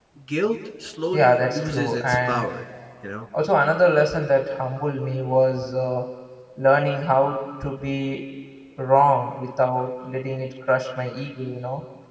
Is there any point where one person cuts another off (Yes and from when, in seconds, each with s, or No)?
Yes, from 1.1 s